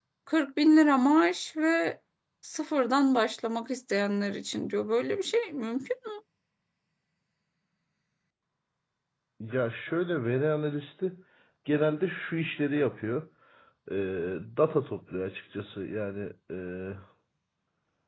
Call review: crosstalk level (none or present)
none